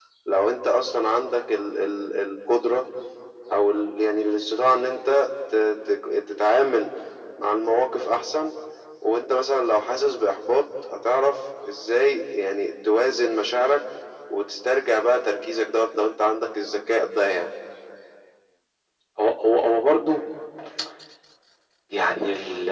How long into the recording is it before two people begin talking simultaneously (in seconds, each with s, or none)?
none